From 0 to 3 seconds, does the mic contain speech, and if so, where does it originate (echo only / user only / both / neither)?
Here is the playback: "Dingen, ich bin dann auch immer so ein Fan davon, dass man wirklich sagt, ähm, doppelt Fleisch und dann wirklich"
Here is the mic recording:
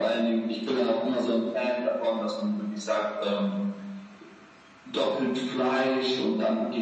echo only